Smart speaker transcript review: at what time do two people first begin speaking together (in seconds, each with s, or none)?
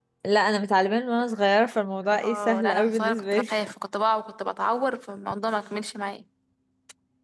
2.2 s